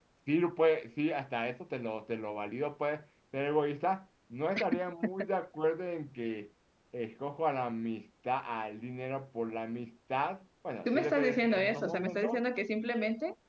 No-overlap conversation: No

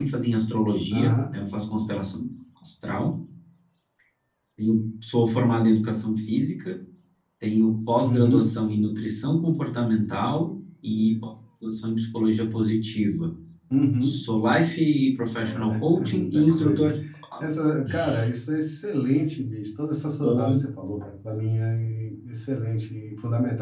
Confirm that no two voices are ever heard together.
No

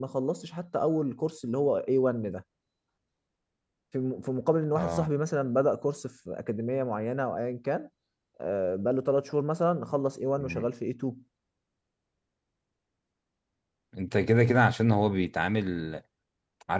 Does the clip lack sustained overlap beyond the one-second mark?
Yes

